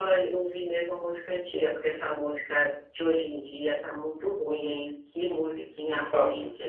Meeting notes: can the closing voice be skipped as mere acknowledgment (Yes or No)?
Yes